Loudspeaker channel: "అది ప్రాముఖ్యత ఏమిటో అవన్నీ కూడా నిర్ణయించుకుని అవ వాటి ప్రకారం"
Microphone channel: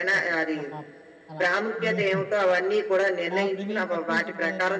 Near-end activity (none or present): present